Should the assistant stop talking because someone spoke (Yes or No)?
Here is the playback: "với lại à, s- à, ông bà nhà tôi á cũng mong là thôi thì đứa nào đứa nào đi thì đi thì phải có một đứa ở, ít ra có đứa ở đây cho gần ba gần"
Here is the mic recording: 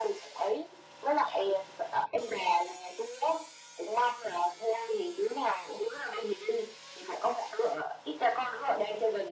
No